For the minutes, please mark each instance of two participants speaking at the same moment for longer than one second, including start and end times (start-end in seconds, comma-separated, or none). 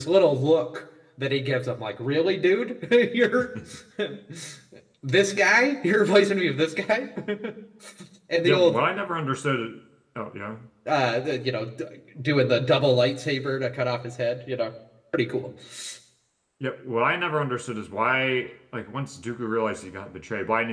none